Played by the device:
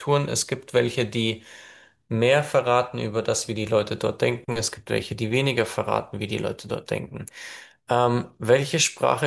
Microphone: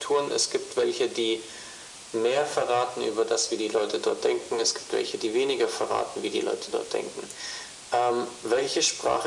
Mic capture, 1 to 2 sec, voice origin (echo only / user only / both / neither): echo only